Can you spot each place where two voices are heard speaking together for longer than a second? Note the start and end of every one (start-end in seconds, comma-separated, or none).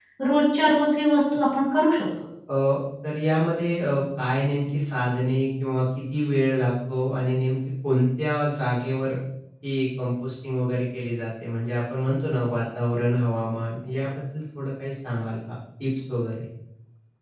none